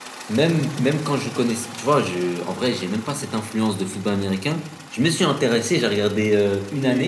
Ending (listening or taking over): listening